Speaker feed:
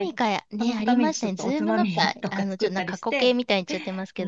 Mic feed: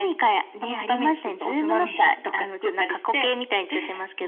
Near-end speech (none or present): none